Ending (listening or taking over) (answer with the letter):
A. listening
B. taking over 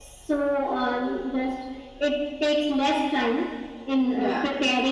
A